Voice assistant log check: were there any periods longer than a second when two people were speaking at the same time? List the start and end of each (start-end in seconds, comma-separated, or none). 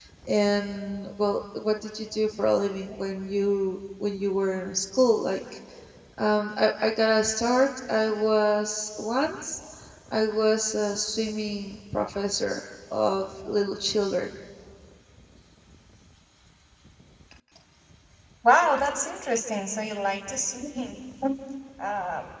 none